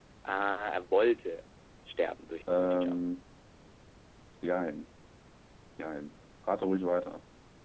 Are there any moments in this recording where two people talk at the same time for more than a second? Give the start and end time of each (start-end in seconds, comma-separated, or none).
none